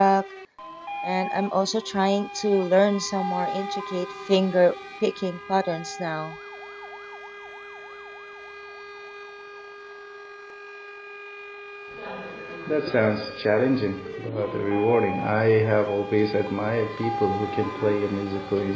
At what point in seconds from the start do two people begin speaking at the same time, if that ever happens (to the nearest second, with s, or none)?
none